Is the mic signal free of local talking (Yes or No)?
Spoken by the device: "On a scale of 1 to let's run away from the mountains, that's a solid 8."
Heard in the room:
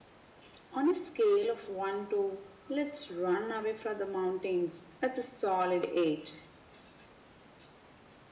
Yes